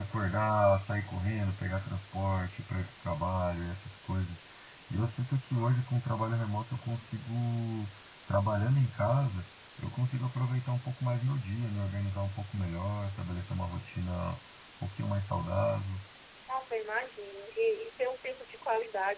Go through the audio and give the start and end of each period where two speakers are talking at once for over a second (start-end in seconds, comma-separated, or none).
none